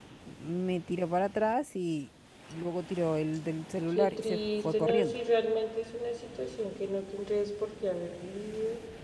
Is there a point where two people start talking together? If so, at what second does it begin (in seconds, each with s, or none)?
4.0 s